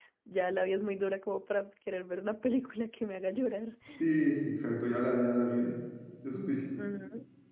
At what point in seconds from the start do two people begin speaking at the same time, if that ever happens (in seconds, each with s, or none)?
none